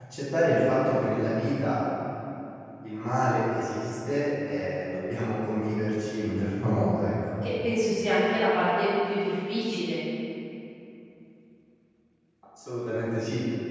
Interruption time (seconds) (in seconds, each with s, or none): none